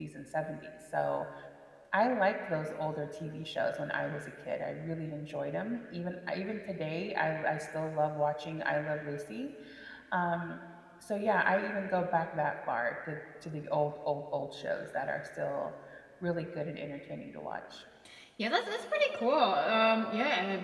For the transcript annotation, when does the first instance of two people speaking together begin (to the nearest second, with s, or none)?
none